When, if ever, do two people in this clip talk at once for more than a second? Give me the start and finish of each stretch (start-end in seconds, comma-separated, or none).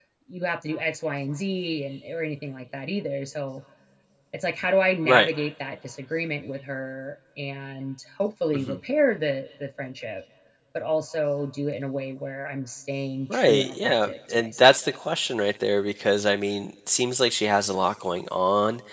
13.3-14.8